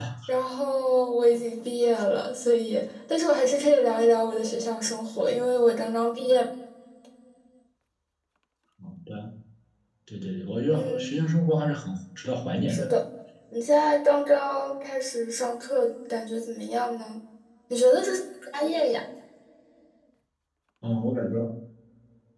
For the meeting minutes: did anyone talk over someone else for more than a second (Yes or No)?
No